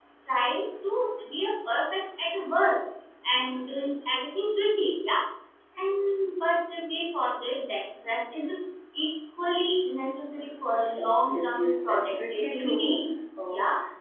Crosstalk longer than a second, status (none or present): present